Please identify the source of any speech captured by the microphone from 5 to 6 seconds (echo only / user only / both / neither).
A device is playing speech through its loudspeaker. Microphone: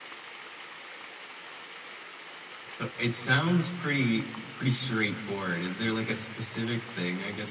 user only